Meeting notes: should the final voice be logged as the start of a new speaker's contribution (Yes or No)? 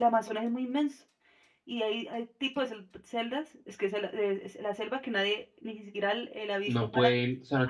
Yes